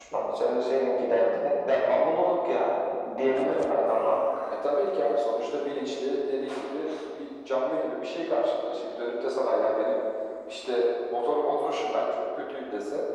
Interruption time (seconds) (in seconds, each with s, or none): none